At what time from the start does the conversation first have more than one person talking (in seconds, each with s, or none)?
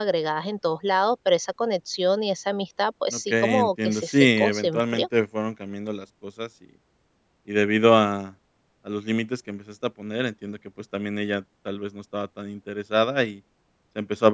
3.1 s